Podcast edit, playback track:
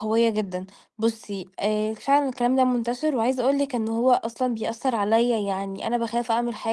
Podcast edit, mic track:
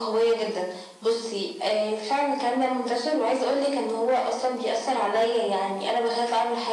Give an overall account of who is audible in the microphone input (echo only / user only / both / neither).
echo only